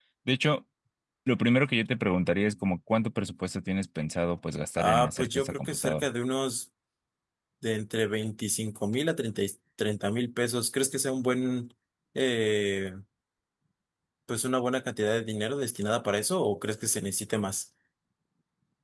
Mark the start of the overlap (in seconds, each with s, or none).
4.8 s